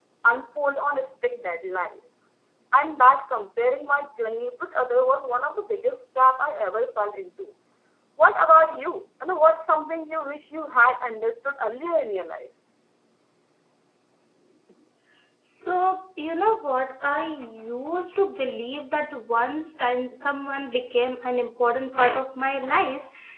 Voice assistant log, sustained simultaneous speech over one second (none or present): none